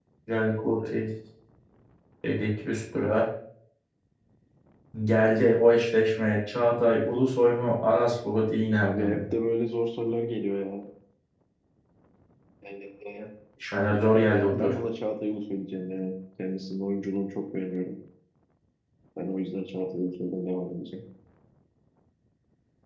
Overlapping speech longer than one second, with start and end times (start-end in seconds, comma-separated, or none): none